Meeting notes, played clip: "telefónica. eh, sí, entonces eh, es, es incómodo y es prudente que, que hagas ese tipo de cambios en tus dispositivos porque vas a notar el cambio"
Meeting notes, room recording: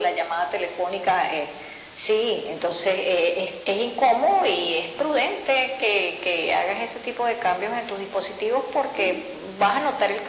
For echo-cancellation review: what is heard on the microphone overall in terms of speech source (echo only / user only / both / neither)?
both